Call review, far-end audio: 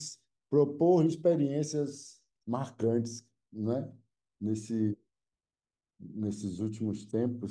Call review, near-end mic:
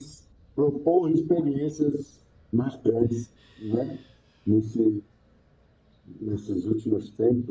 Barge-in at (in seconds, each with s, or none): none